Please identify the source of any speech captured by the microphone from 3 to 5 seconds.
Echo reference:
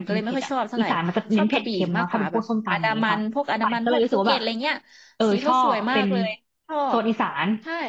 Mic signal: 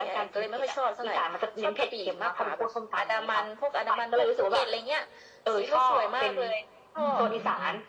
echo only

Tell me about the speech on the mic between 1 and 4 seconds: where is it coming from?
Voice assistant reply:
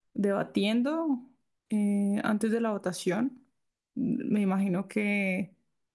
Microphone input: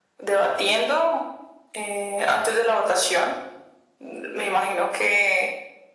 echo only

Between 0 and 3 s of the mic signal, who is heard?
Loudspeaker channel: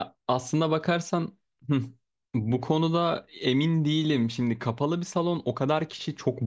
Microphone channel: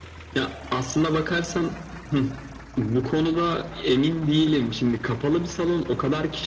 echo only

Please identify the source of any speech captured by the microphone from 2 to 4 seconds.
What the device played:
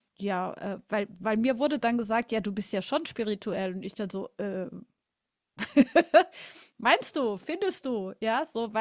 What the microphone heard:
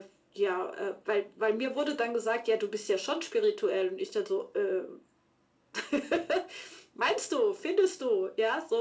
echo only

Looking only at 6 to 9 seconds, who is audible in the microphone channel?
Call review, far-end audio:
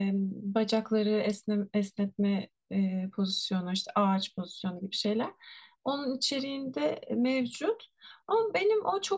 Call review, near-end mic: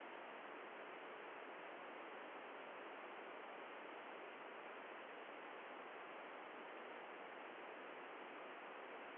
neither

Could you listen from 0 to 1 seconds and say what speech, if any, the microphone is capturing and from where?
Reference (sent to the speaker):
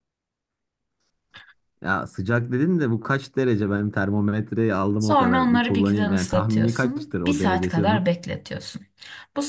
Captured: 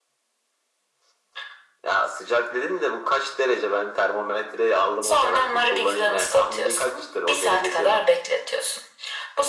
neither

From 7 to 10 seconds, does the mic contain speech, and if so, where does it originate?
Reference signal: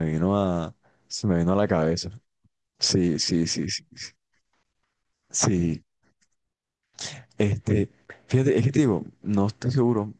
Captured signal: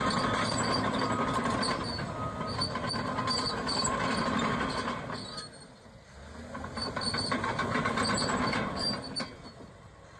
neither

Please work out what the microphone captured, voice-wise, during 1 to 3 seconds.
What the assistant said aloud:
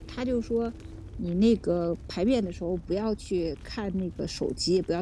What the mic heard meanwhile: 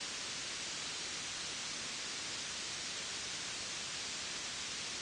neither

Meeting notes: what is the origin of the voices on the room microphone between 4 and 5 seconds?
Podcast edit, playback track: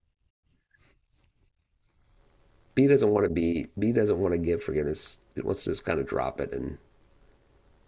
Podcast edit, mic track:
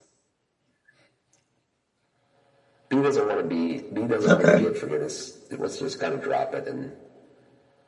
both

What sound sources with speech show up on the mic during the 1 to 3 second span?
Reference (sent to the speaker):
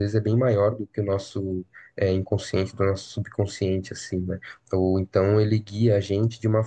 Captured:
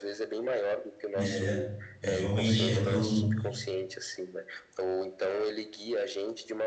both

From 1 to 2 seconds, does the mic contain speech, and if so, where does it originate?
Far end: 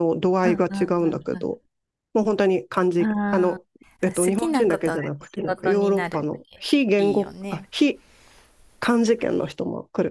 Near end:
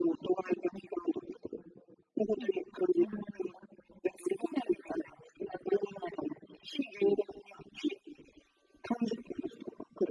echo only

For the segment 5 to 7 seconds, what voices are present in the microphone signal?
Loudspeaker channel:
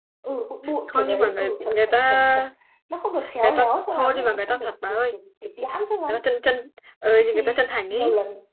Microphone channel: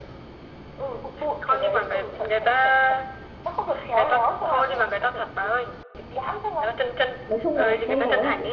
echo only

